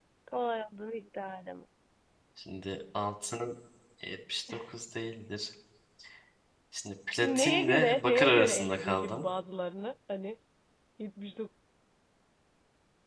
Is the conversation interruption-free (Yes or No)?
No